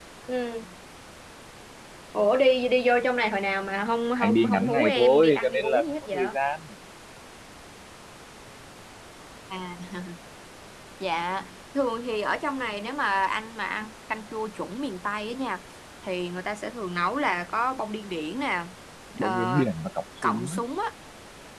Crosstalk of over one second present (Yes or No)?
Yes